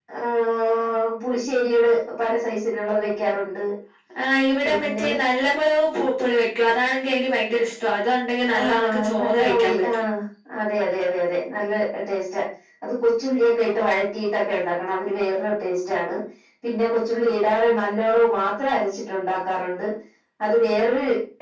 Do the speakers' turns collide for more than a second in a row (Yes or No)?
Yes